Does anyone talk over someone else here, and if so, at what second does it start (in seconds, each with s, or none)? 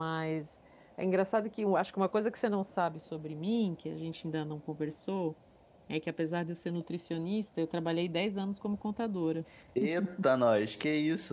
none